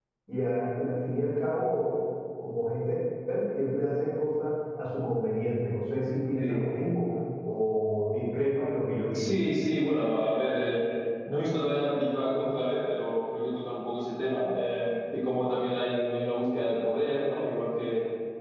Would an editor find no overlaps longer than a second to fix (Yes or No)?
Yes